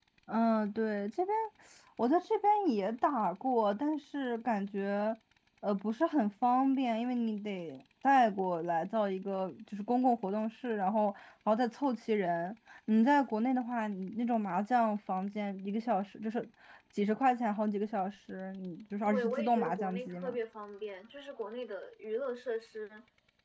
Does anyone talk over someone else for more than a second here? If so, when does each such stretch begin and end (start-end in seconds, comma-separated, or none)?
19.0-20.4